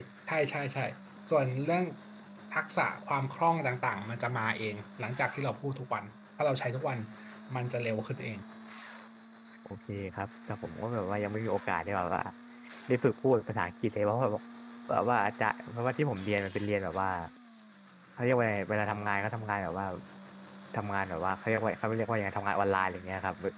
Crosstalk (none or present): none